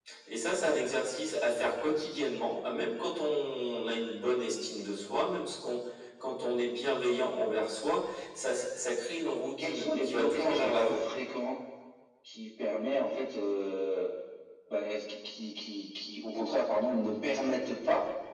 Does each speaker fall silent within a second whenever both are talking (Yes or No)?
No